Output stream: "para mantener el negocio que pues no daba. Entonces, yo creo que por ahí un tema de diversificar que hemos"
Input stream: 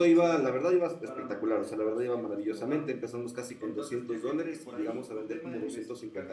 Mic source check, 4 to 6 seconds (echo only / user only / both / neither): both